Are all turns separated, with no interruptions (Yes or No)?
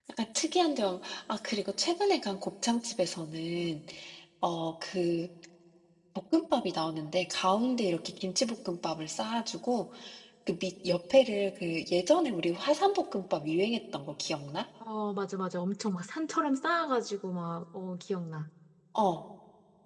Yes